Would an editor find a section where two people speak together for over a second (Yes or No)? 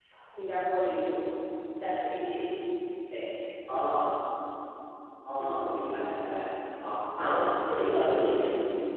Yes